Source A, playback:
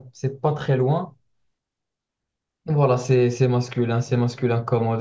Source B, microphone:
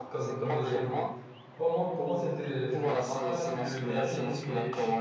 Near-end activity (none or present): present